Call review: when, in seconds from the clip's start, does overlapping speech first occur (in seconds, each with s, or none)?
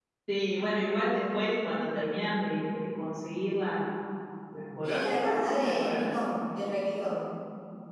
4.8 s